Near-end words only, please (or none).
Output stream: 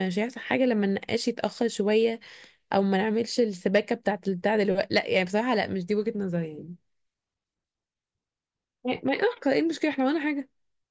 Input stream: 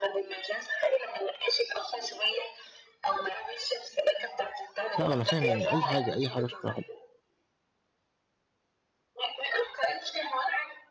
لا ما انا فاهم يعني اي حاجه اي حاجه شكلها حلو